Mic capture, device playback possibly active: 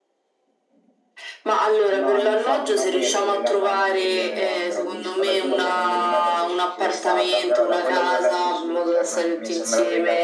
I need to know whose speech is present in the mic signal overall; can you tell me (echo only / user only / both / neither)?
both